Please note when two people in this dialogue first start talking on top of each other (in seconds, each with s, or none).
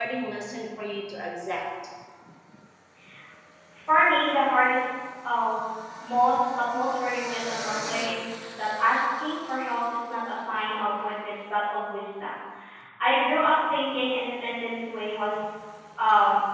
none